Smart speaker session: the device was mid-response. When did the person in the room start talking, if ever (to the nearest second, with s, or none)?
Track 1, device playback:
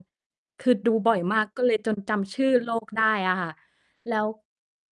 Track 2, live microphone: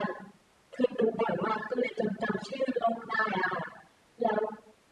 none